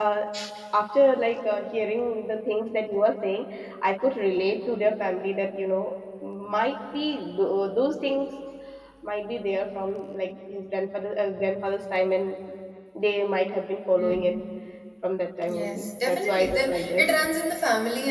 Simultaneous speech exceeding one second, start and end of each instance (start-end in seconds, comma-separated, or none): 15.5-17.1